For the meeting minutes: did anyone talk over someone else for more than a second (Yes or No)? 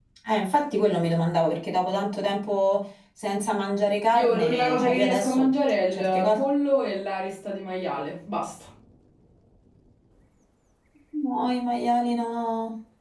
Yes